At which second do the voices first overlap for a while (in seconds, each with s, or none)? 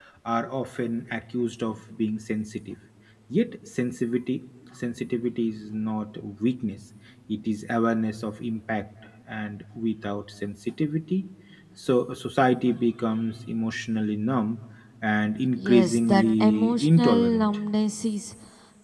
15.6 s